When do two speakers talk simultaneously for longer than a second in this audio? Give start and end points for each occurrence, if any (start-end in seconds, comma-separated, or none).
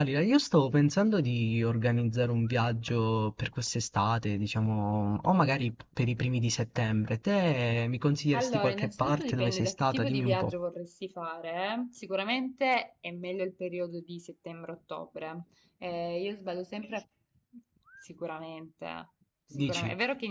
8.3-10.5